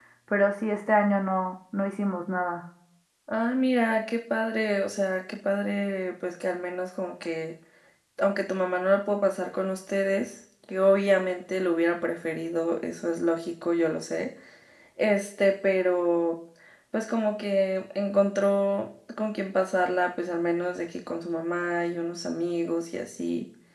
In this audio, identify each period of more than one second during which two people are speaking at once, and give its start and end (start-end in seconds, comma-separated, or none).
none